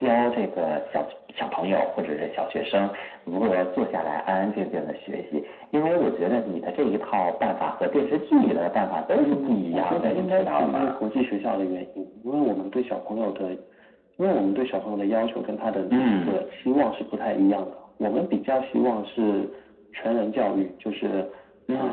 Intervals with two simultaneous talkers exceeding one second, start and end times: 9.2-10.8

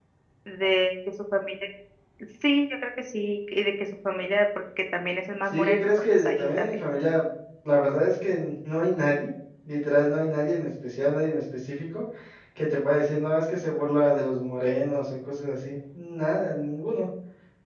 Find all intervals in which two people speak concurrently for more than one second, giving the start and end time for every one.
5.5-6.8

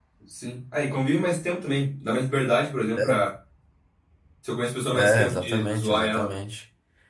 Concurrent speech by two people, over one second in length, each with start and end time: 4.9-6.4

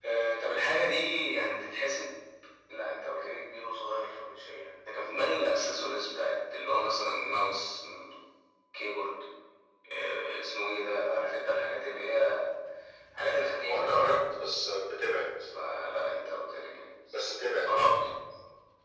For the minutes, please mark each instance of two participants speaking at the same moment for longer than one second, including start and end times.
none

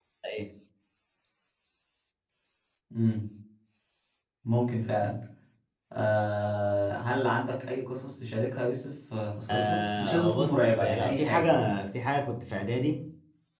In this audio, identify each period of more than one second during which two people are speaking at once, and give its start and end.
9.5-11.5

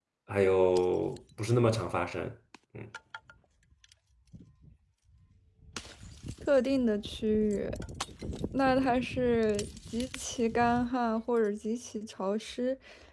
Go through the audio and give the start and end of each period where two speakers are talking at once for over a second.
none

